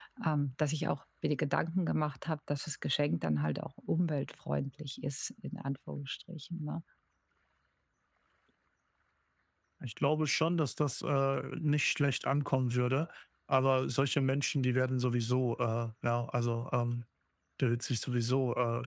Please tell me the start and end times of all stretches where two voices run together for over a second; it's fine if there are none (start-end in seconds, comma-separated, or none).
none